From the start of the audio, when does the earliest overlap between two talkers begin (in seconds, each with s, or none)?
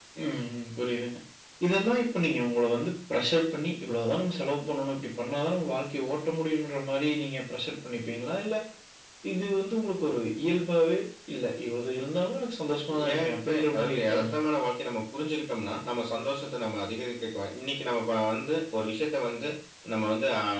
12.9 s